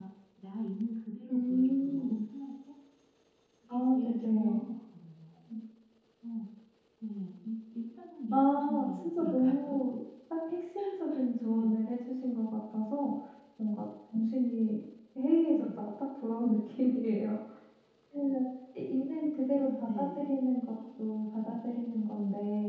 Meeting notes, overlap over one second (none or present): present